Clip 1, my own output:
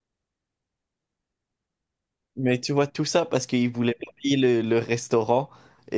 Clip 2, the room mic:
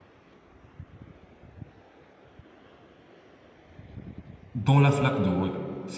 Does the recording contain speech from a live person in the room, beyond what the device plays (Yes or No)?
Yes